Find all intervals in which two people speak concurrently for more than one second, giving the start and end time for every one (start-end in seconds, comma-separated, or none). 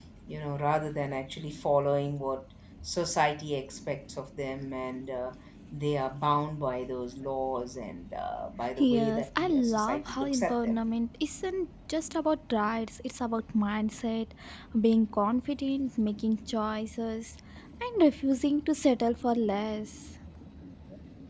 8.8-10.8